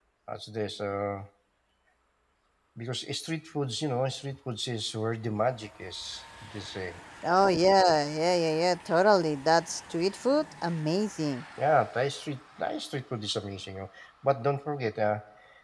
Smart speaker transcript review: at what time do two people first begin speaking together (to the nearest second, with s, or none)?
none